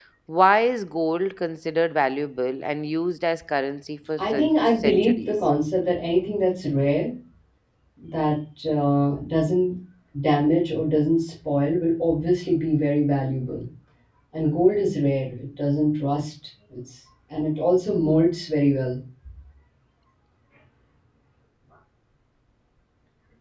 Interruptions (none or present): present